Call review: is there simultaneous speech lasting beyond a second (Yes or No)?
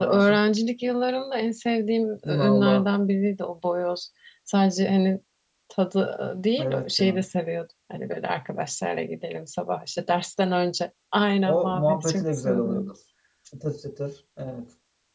Yes